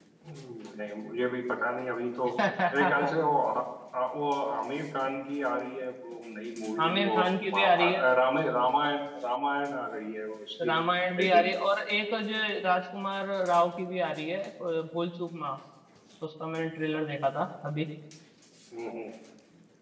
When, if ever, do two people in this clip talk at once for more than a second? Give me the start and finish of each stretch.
none

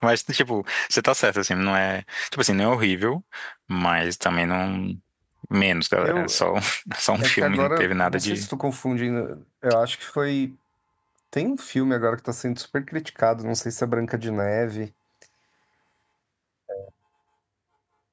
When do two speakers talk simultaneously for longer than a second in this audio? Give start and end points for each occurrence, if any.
7.2-8.5

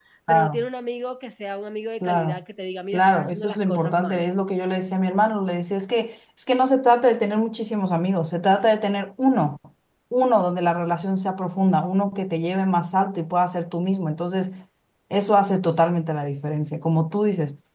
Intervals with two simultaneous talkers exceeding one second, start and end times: 2.9-4.2

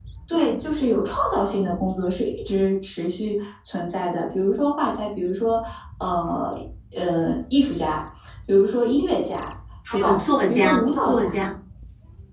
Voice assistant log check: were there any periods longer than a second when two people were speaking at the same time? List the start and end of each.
9.9-11.2

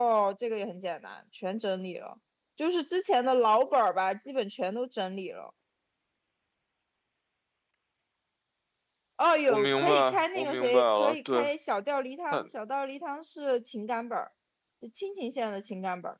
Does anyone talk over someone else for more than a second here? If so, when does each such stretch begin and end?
9.5-11.5

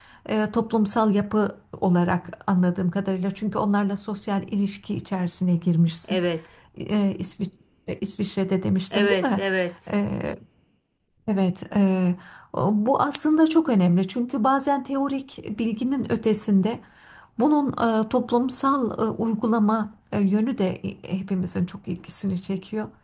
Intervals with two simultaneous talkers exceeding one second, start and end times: none

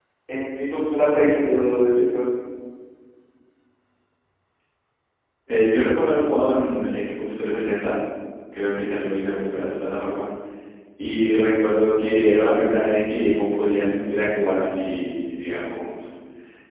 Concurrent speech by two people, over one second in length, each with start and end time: none

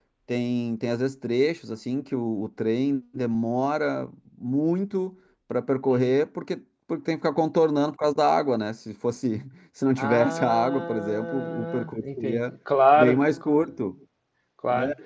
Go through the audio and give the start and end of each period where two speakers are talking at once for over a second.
10.0-12.4

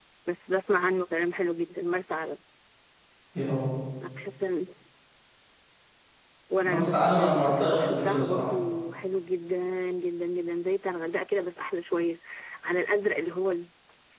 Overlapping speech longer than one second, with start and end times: 6.6-8.4

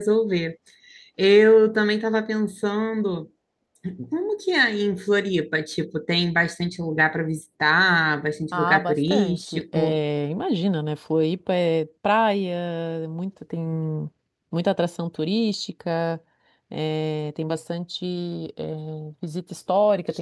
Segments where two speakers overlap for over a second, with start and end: 8.5-10.0

